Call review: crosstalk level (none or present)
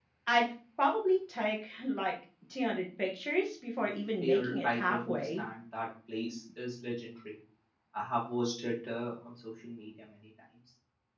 present